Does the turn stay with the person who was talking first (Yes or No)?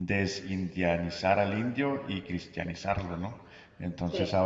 Yes